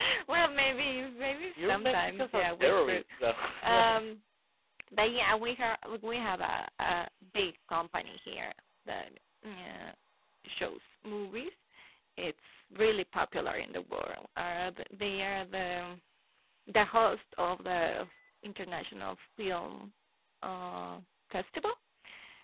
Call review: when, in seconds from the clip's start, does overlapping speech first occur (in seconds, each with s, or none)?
1.6 s